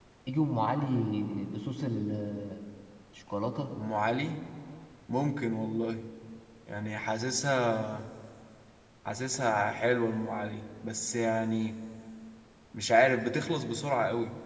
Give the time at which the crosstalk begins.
none

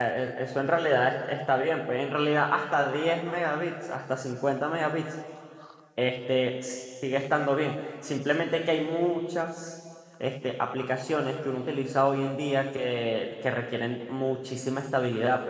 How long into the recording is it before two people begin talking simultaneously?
none

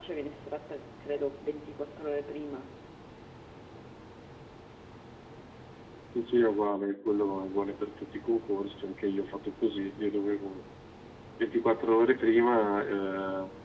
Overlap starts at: none

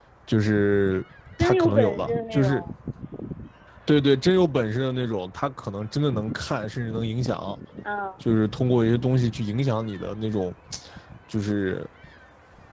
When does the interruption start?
1 s

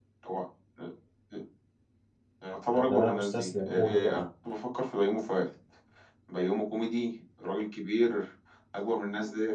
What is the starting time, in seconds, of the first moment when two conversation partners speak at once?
3 s

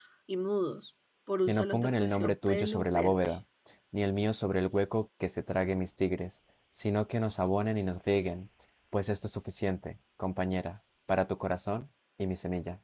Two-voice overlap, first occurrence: 1 s

